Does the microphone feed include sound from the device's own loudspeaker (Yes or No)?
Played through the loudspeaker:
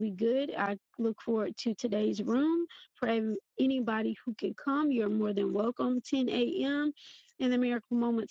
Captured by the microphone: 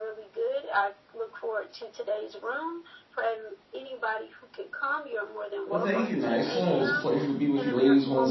Yes